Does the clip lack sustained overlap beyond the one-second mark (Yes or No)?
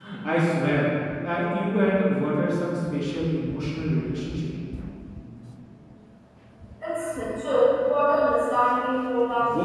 Yes